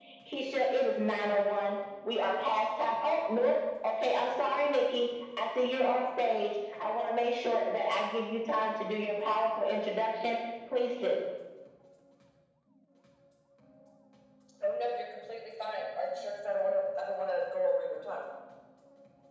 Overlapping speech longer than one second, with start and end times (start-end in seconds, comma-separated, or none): none